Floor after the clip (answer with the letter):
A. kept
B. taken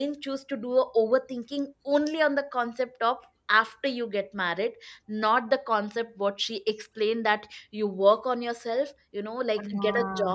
A